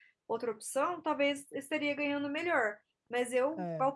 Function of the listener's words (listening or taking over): listening